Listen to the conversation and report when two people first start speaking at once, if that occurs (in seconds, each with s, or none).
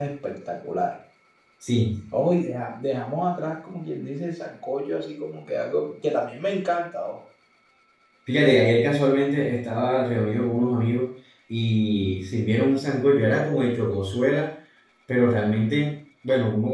none